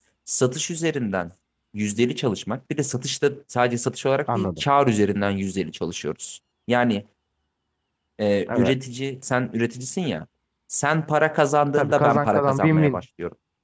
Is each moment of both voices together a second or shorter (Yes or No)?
No